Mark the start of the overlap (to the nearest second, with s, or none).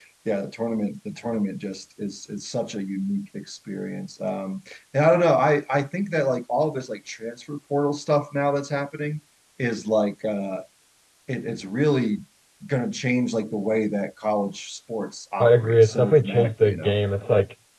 15 s